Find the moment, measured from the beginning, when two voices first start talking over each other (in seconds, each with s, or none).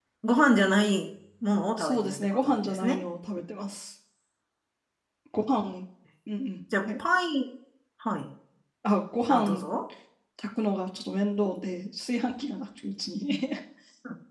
1.8 s